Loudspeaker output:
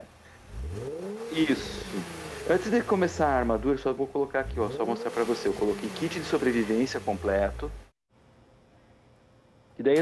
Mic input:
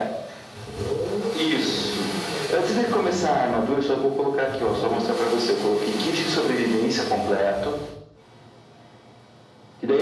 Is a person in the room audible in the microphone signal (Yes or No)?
No